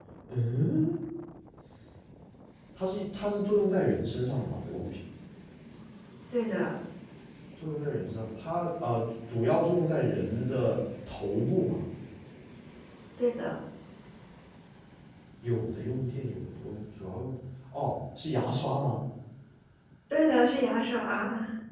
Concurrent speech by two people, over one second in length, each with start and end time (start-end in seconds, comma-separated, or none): none